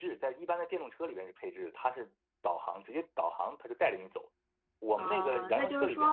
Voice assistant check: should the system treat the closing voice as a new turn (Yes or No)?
Yes